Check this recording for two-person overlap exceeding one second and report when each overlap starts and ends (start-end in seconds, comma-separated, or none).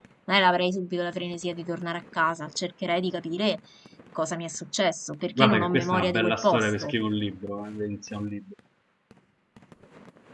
5.4-6.9